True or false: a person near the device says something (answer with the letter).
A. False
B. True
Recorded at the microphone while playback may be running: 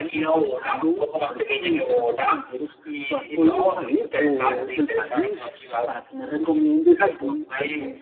B